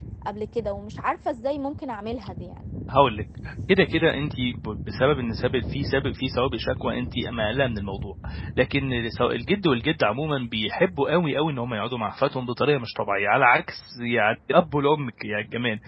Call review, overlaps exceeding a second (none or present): none